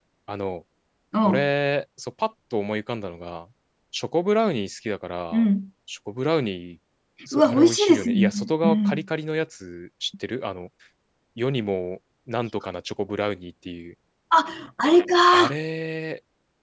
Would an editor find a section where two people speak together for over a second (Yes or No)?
Yes